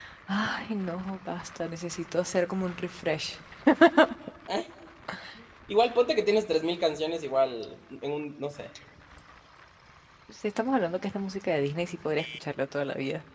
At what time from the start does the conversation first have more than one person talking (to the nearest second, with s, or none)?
none